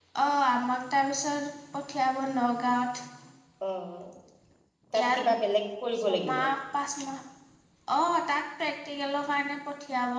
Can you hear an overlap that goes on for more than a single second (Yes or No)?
No